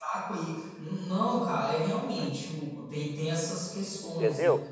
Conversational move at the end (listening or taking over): taking over